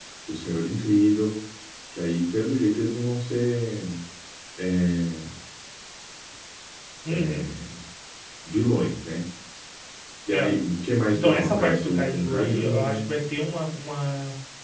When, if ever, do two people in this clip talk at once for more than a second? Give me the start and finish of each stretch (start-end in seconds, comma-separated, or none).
11.1-13.0